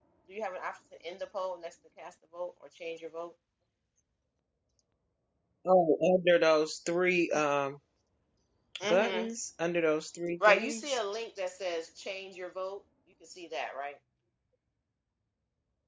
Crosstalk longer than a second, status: none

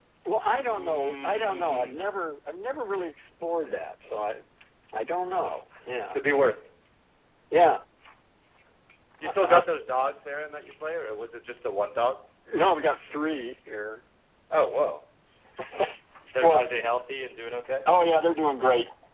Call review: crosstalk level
present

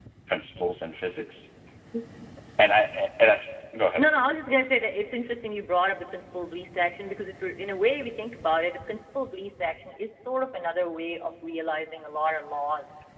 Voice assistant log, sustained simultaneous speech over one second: none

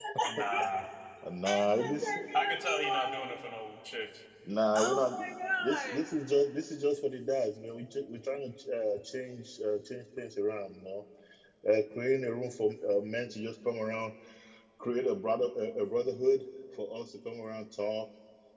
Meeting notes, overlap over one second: present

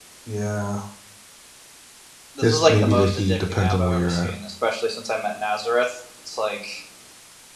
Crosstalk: present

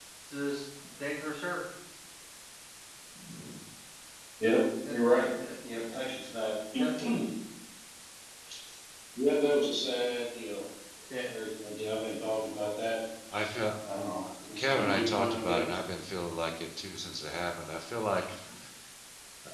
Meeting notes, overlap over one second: present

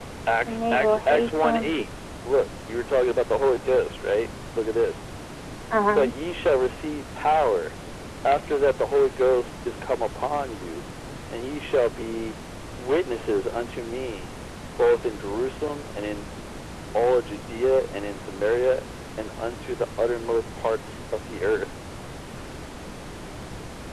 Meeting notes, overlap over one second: present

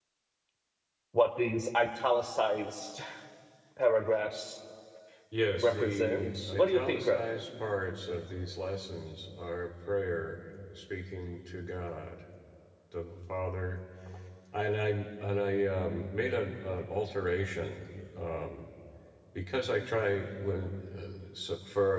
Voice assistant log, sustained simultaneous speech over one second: present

